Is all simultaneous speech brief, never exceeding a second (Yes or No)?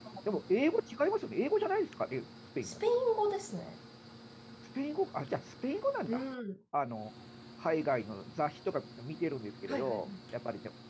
Yes